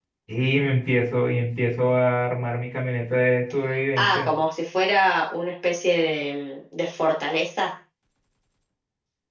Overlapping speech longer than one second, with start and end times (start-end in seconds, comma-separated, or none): none